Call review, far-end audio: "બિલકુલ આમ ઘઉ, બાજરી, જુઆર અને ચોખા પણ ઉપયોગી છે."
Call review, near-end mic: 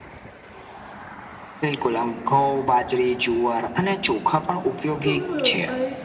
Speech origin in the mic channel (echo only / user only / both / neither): both